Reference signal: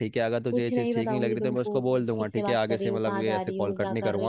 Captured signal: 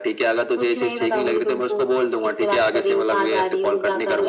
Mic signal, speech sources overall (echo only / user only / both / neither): echo only